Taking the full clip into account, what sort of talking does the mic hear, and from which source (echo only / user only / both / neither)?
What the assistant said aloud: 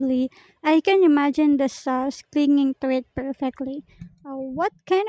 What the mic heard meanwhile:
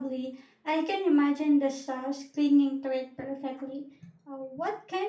echo only